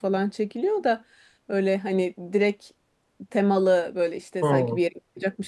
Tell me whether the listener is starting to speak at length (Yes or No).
No